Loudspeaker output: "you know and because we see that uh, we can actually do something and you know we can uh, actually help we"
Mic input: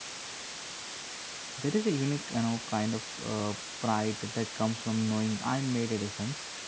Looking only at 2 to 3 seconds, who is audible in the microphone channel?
user only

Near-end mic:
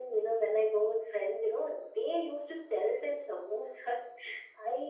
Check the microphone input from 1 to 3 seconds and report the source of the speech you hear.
echo only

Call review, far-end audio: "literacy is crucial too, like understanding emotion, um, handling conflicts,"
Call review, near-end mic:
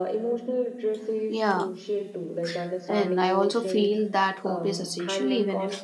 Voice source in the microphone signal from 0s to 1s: echo only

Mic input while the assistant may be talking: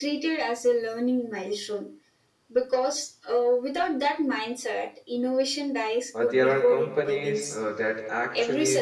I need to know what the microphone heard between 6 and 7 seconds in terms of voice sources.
both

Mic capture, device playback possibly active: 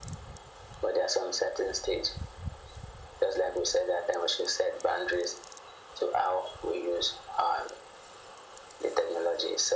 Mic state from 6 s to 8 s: echo only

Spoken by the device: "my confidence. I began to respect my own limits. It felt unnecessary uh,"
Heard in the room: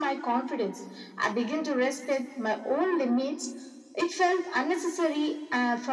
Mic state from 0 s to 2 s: echo only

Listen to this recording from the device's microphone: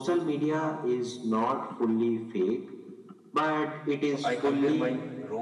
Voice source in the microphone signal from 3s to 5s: both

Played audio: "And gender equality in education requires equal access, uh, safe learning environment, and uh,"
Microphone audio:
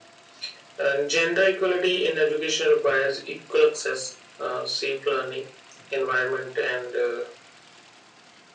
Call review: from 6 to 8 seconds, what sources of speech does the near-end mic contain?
echo only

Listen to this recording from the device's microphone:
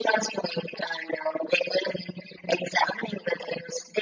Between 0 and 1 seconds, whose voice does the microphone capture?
echo only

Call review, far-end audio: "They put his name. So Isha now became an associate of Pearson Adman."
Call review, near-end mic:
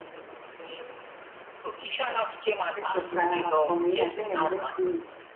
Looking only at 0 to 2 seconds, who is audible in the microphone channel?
echo only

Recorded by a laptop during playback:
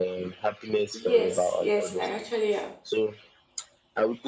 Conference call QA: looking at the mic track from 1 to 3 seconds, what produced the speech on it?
both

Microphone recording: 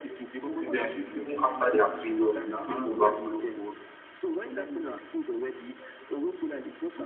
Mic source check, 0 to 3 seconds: both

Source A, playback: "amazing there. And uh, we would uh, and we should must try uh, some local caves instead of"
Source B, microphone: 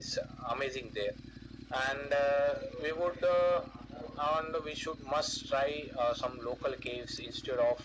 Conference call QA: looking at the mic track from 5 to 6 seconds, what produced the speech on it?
echo only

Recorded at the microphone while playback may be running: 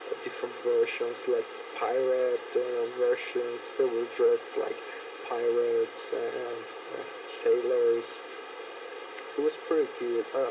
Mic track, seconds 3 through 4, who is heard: echo only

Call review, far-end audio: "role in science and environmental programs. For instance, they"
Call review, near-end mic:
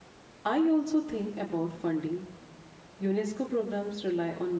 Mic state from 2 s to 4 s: user only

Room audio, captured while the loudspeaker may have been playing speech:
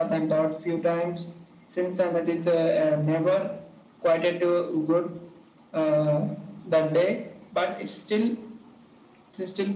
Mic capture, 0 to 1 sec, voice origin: echo only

